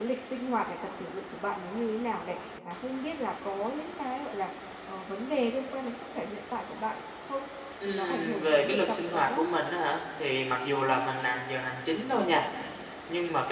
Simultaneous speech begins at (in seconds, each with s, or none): 7.8 s